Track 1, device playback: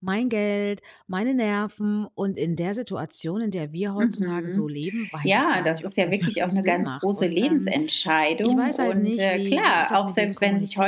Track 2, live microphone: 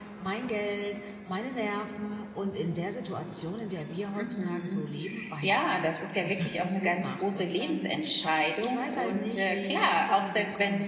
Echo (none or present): present